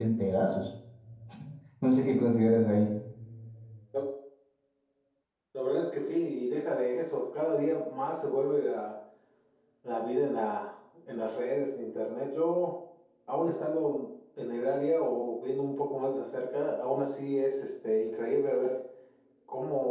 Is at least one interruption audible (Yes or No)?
No